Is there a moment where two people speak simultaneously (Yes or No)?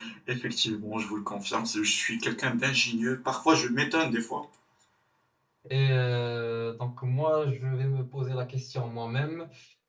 No